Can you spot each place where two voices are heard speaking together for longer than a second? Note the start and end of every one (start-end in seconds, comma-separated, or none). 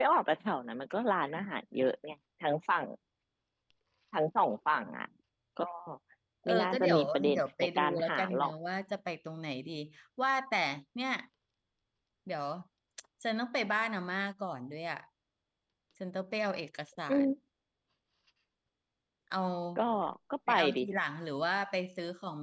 6.5-8.5